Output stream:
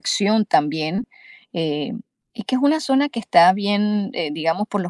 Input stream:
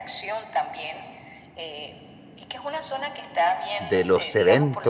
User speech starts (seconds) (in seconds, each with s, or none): 3.8 s